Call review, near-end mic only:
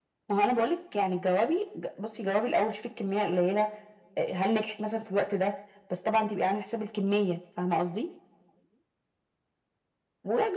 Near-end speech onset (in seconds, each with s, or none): none